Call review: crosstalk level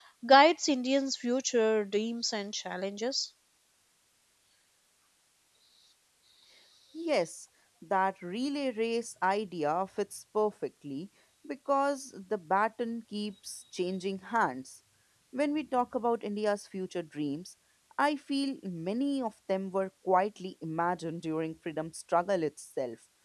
none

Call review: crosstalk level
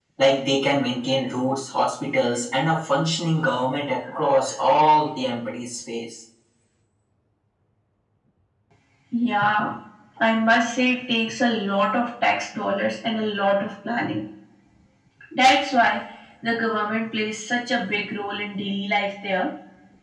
none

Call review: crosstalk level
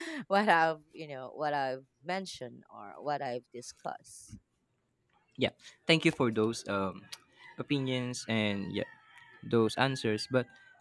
none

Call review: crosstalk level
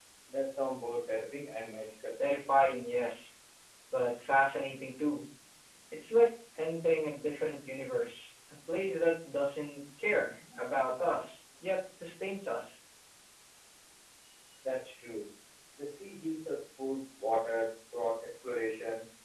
none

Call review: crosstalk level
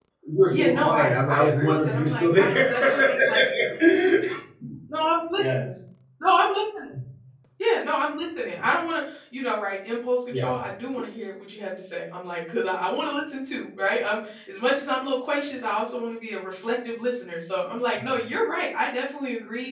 present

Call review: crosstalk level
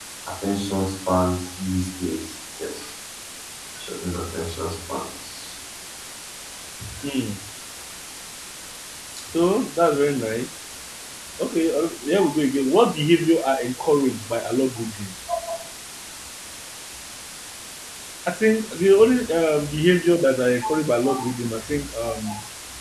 none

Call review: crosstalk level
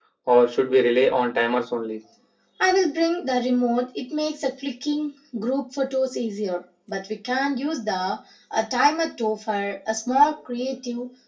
none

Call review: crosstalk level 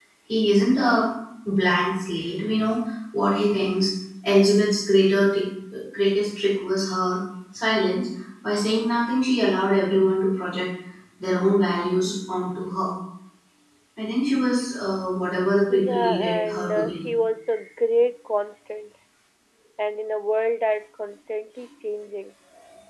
present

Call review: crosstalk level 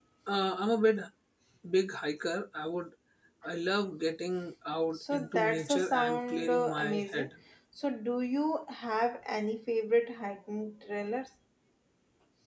present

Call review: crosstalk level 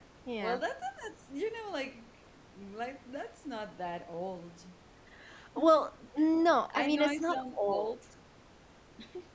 present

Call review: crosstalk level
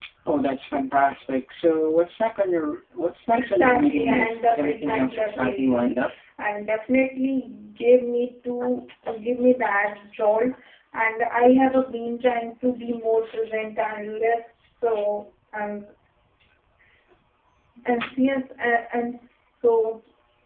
present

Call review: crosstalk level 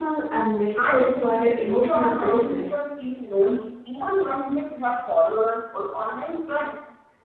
present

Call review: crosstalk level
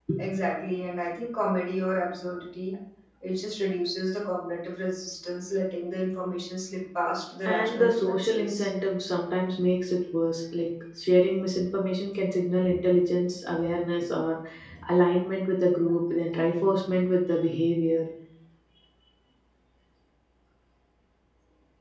present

